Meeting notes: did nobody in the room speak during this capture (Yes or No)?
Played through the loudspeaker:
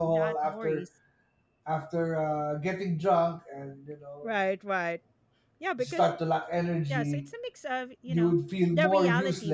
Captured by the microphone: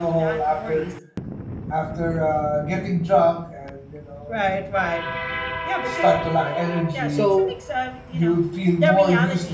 No